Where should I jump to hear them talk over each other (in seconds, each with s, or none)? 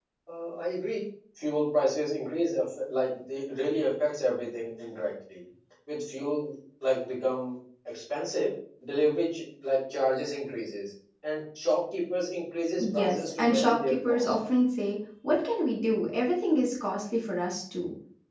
12.8 s